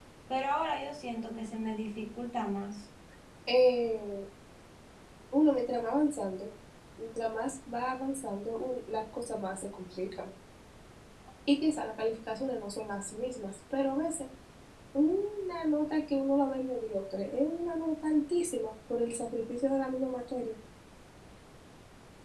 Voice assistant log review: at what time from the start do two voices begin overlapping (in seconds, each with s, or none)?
none